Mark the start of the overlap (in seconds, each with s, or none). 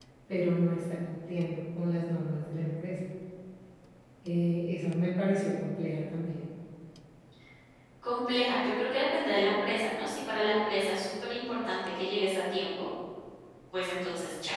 none